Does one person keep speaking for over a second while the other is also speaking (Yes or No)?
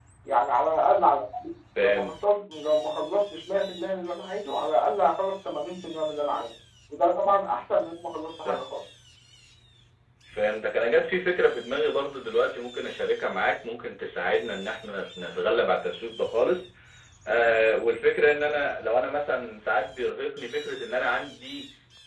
No